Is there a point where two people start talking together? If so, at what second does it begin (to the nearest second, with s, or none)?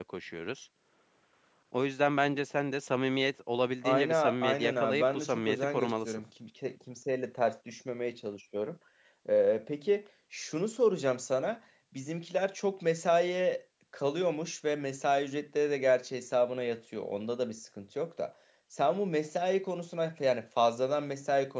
4 s